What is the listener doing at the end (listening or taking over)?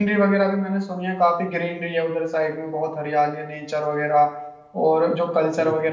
listening